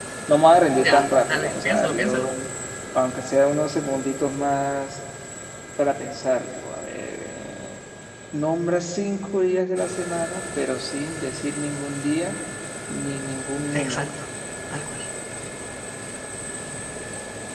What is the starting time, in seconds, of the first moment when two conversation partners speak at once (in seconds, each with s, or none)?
0.8 s